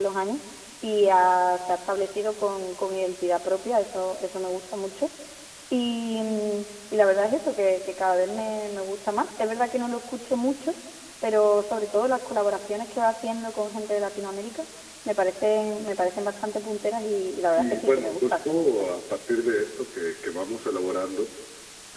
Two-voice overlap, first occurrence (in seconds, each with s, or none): 17.6 s